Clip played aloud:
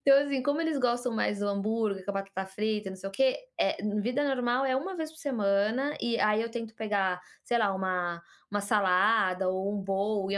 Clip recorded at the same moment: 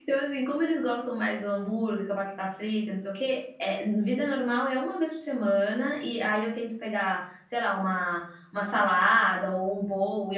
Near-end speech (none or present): none